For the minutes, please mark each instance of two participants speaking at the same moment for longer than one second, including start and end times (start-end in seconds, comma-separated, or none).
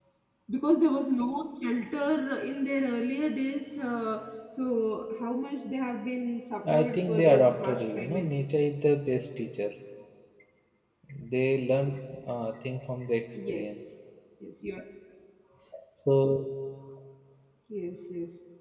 6.7-8.3